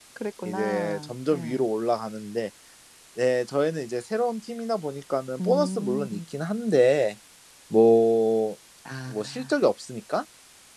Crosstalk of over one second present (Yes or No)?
Yes